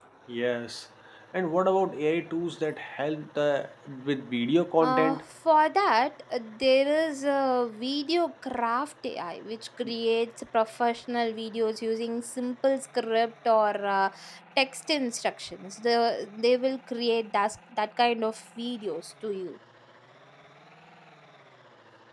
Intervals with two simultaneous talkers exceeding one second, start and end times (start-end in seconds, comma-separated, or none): none